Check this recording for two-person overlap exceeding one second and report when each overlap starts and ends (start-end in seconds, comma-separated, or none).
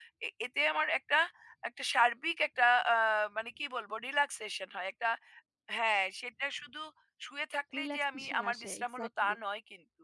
7.8-9.4